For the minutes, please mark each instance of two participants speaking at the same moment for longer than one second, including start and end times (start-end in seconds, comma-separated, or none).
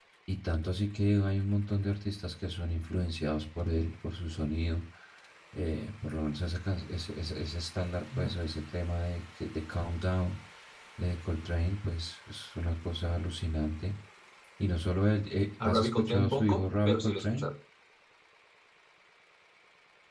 15.6-17.5